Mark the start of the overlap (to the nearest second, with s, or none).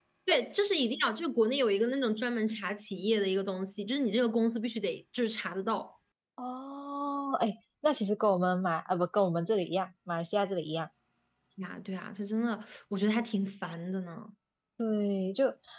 none